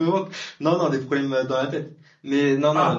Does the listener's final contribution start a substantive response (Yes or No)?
No